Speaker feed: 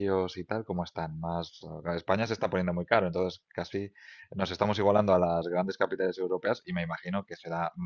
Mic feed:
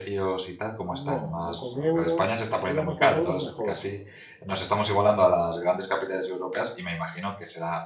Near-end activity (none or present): present